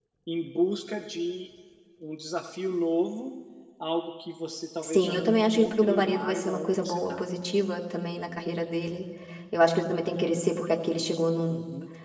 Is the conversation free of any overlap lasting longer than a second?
No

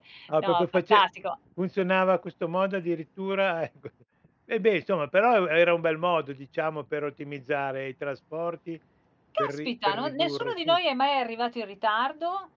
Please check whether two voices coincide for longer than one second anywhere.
Yes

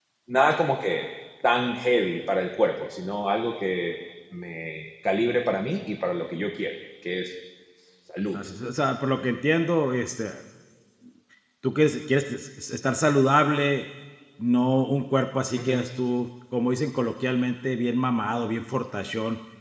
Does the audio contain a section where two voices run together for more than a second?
No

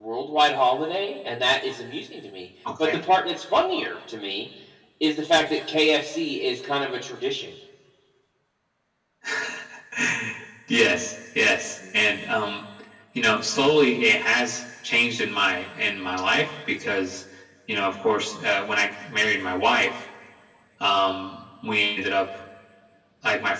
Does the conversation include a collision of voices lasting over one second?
No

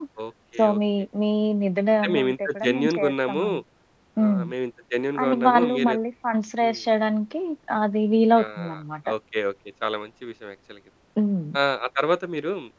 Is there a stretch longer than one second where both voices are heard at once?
Yes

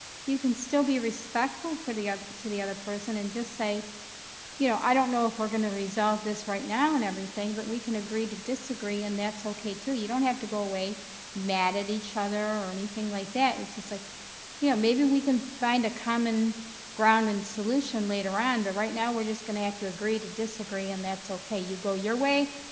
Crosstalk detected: No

